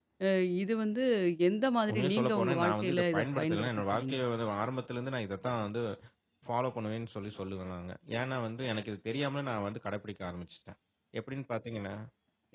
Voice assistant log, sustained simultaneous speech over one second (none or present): present